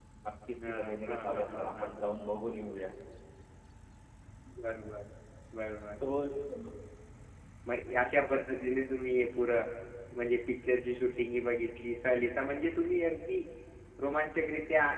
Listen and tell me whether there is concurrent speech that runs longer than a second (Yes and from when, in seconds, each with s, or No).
Yes, from 0.7 s